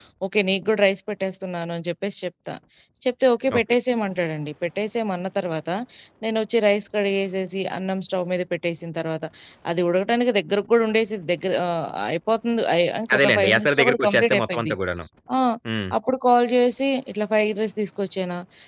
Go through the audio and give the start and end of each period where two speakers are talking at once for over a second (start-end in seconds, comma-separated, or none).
13.1-14.8